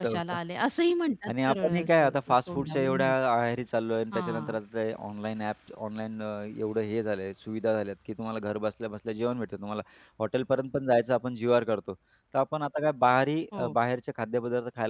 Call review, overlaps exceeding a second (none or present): present